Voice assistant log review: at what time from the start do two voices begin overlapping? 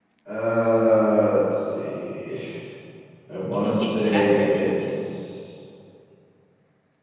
3.5 s

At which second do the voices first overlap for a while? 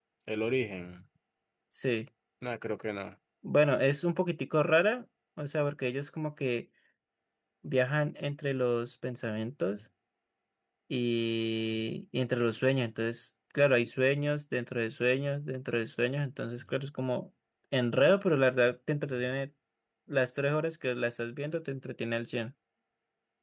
none

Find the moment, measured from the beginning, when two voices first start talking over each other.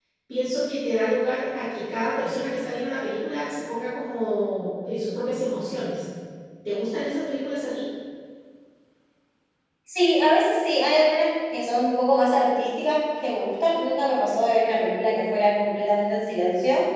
none

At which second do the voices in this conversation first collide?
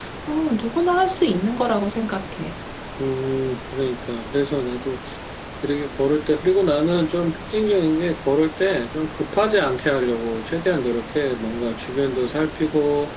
none

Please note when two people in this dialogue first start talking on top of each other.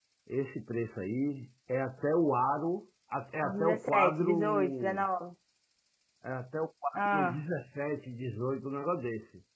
3.4 s

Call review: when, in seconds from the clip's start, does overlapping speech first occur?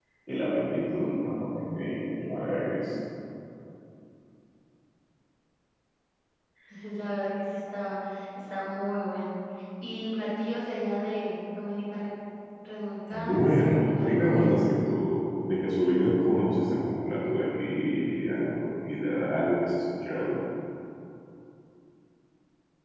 13.1 s

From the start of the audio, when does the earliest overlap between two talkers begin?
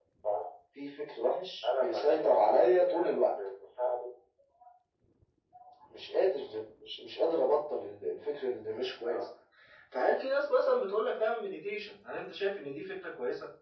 1.6 s

